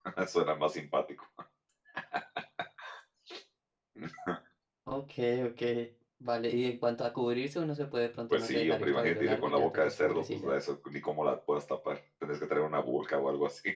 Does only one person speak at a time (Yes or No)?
No